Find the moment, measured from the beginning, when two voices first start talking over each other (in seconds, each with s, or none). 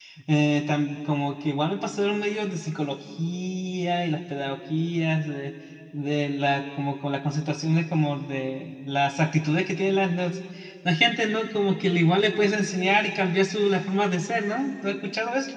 none